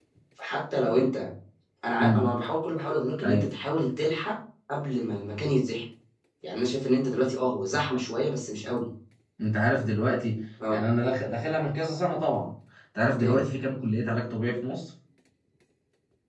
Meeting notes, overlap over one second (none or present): none